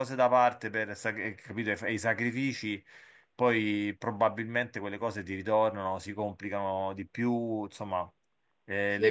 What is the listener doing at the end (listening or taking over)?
taking over